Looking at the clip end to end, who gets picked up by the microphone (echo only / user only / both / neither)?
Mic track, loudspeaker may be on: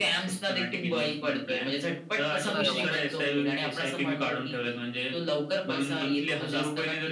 both